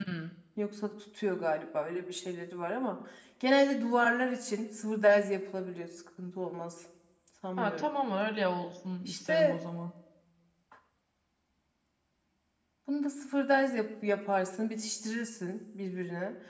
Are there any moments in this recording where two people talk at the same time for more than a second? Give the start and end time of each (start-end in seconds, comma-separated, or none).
none